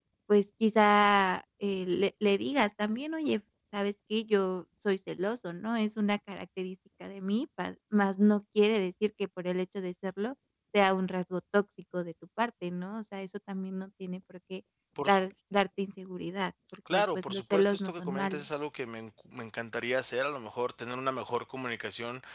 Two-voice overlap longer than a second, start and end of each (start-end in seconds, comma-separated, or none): 16.9-18.4